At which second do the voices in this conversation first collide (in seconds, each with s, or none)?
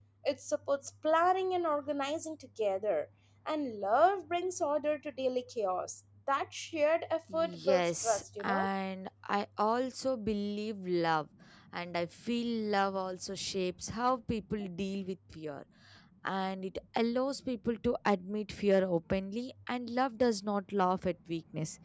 7.3 s